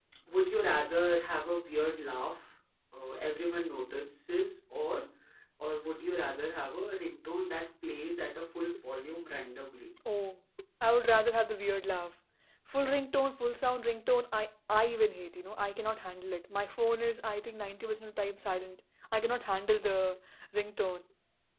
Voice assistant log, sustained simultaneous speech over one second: none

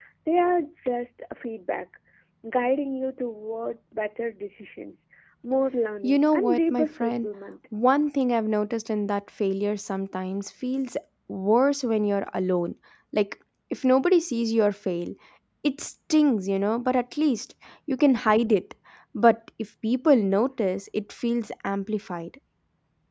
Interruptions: present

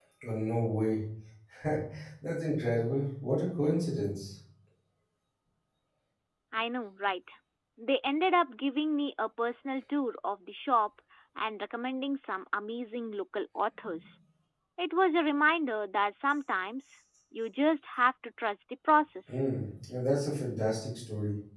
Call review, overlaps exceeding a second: none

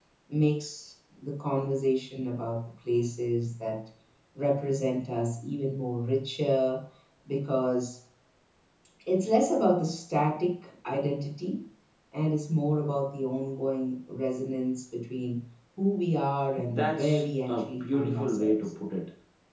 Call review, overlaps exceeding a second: present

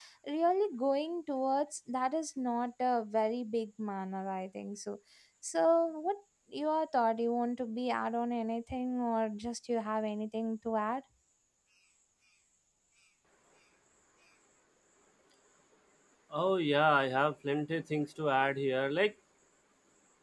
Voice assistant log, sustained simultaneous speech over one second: none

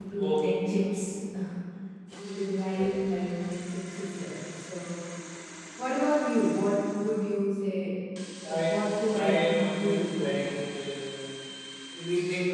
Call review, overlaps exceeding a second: present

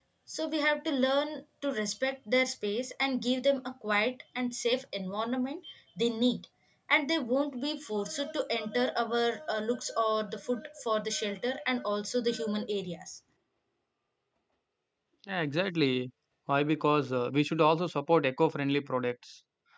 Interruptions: none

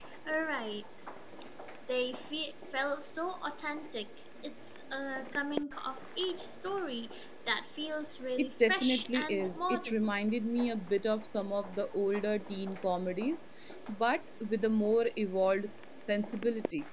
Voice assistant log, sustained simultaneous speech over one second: present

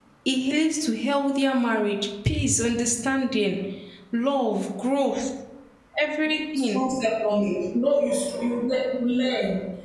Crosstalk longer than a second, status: none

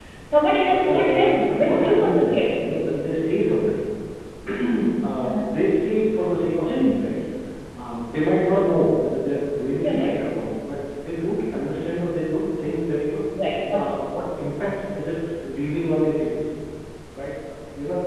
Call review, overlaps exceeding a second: present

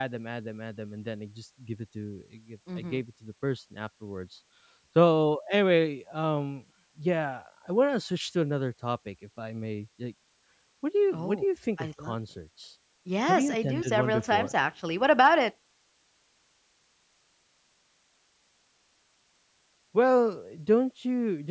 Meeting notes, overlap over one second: present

